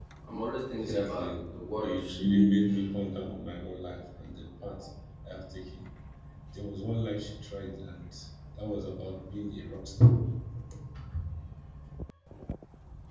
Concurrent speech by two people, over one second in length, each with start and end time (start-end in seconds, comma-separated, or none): 0.8-2.2